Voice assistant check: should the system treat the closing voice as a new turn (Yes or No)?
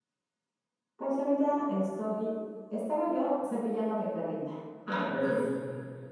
Yes